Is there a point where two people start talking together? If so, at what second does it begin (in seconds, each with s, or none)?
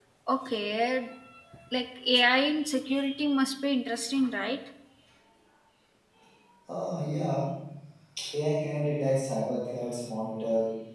none